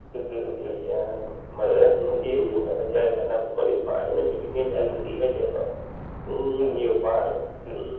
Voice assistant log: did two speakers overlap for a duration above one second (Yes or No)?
No